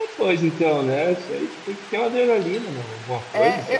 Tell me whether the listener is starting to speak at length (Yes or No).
Yes